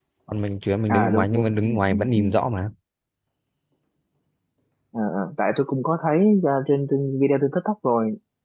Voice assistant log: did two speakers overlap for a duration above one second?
Yes, from 0.9 s

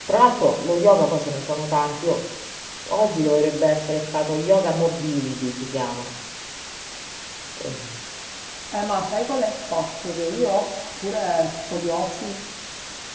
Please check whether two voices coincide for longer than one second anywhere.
No

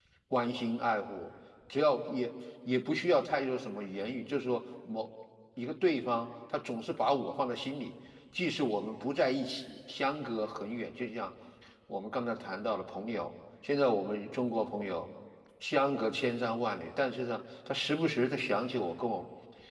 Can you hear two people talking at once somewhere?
No

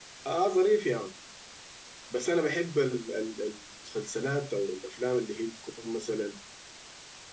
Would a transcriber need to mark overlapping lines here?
No

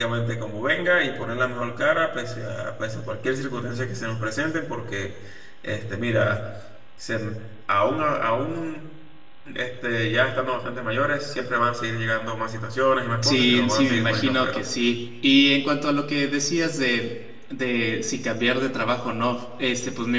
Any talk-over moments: Yes, from 13.2 s

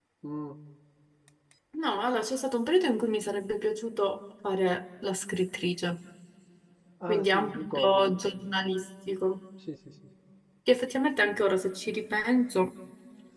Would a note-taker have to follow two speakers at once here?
Yes, from 7.1 s

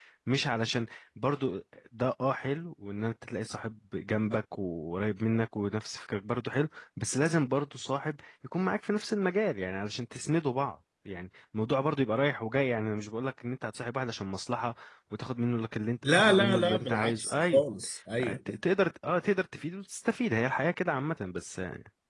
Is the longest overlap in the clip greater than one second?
Yes, from 16.0 s

